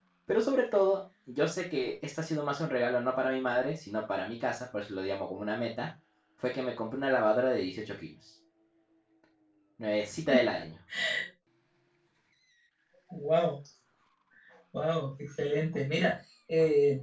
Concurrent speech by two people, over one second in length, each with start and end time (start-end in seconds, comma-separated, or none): none